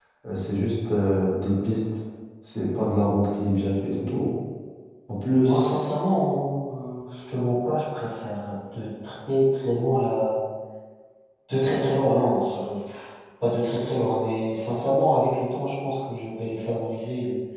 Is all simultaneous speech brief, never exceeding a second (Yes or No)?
Yes